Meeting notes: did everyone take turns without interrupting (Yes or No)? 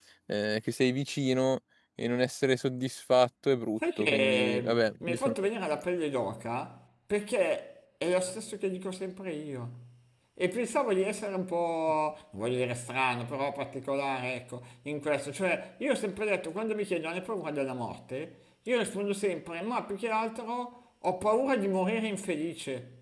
No